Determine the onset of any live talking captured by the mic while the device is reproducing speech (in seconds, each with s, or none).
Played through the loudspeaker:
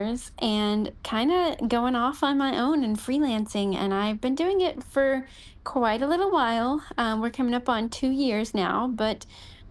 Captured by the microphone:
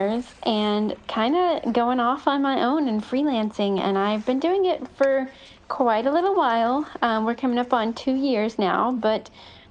none